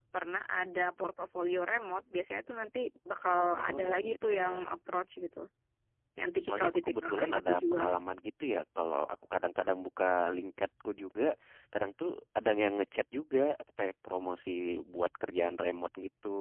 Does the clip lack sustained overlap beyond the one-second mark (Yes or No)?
No